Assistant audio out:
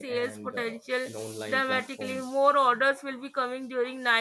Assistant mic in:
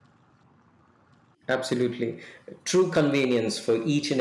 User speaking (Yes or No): Yes